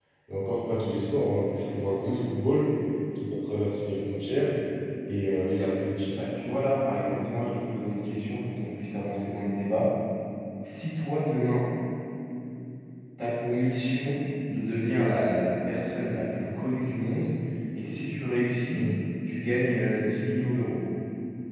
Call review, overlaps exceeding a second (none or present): none